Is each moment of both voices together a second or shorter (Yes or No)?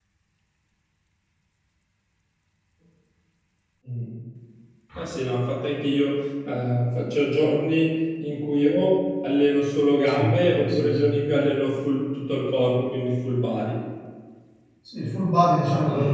Yes